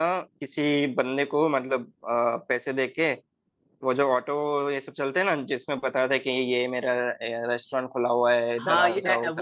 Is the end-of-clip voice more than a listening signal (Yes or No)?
Yes